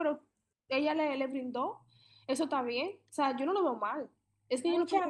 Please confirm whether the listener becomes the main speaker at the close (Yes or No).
Yes